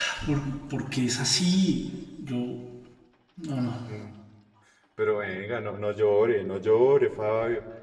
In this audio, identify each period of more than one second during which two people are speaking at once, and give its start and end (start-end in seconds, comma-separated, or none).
none